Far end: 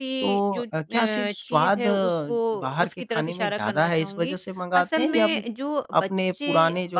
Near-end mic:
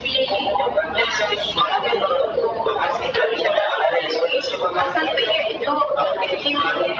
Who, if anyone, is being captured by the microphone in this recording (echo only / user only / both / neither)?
echo only